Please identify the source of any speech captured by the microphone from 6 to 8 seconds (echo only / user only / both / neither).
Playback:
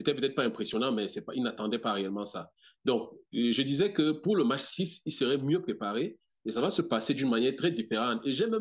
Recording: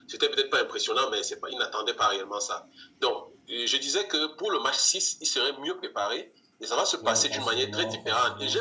both